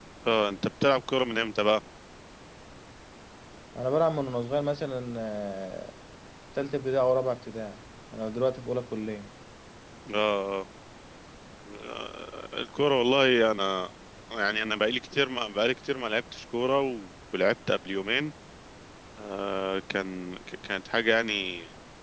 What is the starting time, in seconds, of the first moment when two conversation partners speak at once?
none

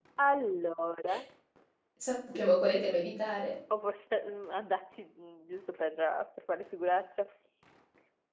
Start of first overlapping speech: none

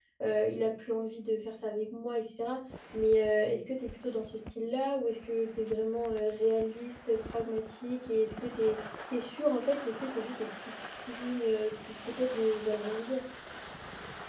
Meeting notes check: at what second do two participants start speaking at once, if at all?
none

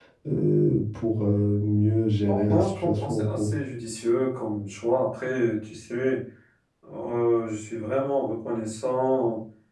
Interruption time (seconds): 2.3 s

